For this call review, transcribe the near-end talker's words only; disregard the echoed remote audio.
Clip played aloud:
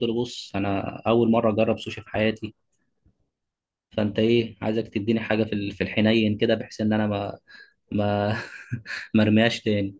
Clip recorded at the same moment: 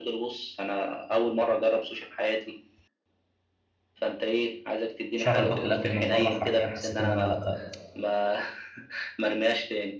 شهر باكل اكل من بره حرفيا حسيت ان انا لا

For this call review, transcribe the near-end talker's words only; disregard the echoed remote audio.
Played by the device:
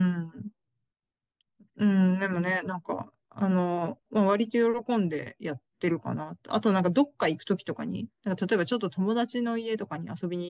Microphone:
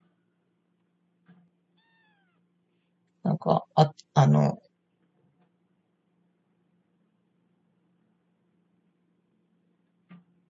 なんか、あ、あの、

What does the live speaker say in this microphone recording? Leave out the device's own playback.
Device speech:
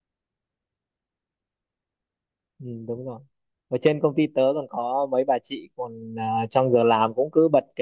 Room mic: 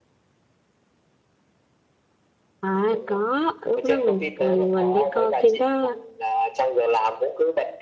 À có, lúc đó mình mình mình đã coi phim đó

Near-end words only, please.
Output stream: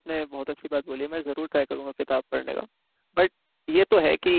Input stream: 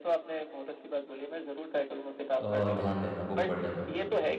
अ, ध्यान देना बुक पढ़ने में

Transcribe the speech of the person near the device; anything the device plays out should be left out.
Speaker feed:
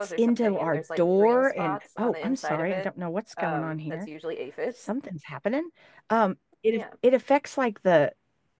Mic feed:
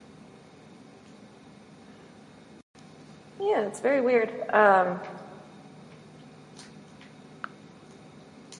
Yeah, it's very weird. Um,

